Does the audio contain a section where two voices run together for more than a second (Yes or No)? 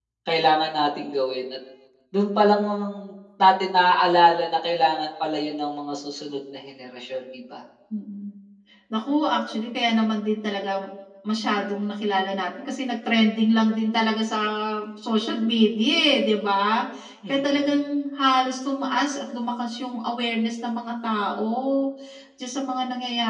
No